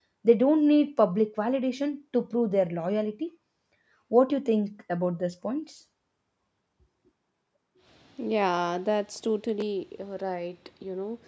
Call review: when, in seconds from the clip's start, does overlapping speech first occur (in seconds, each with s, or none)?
none